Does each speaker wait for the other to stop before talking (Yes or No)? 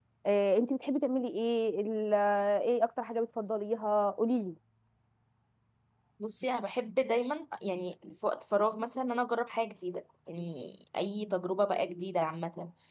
Yes